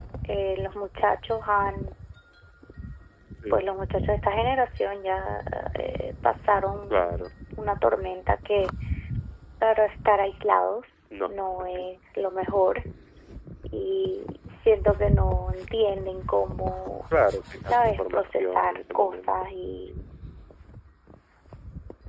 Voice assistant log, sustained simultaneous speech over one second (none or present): present